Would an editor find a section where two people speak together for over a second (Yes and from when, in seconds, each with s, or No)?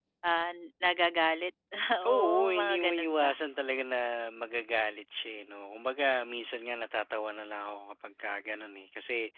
Yes, from 2.1 s